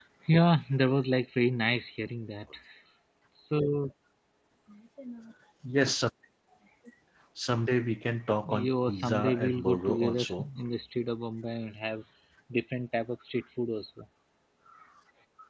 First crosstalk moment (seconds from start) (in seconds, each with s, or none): 8.4 s